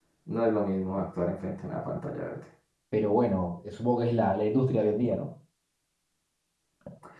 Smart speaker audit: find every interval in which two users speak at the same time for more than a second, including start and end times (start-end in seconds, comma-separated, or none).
none